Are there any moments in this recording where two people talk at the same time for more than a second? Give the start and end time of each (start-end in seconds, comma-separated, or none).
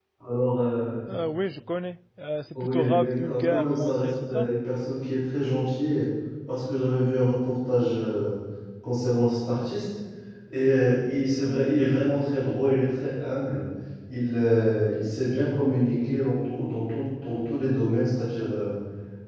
2.6-4.5